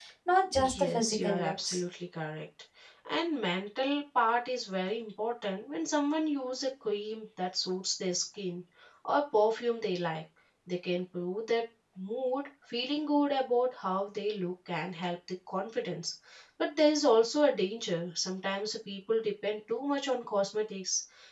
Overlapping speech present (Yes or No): Yes